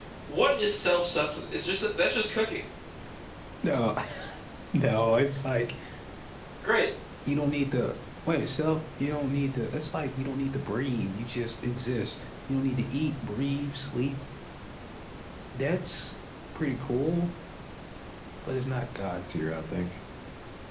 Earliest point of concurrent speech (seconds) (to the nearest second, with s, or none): none